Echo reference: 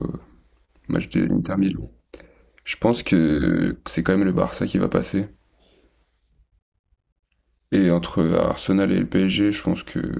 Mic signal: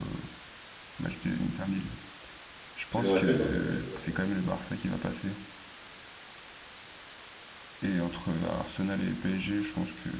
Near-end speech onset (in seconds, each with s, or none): 2.9 s